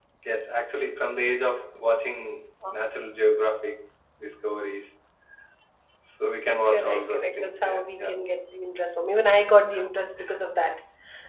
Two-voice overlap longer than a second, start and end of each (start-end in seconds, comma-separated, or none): 6.7-8.1